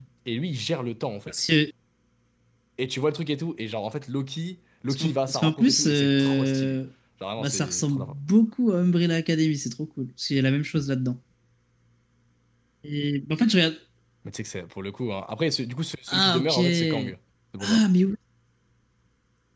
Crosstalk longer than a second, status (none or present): present